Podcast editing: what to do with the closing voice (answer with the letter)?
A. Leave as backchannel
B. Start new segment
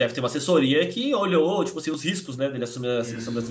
B